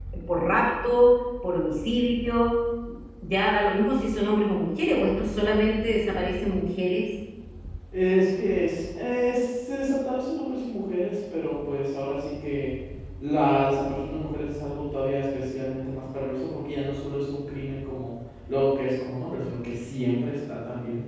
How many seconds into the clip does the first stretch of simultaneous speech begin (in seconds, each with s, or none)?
none